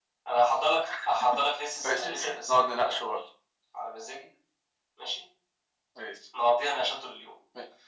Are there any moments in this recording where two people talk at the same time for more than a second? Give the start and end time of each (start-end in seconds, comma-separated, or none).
1.8-3.1